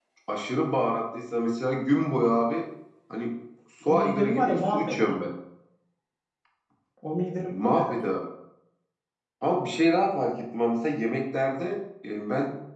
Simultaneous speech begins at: 3.9 s

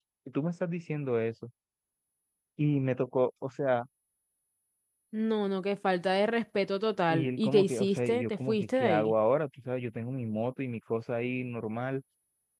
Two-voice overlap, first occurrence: 7.1 s

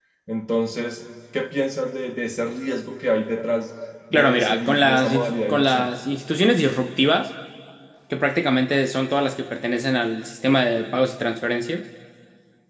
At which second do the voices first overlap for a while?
4.1 s

